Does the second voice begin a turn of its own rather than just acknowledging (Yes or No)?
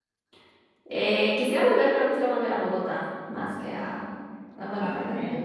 No